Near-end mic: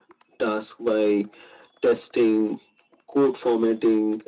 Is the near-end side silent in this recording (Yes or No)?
Yes